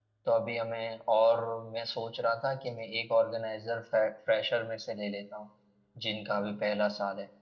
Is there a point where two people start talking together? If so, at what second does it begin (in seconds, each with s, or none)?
none